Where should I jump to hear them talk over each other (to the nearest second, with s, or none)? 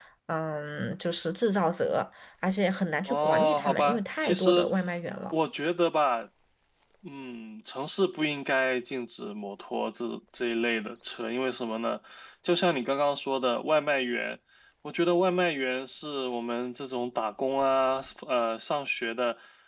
3 s